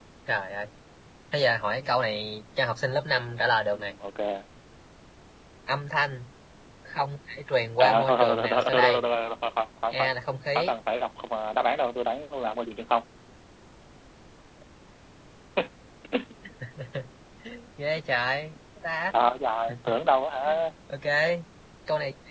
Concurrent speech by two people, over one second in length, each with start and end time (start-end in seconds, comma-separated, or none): 7.8-9.1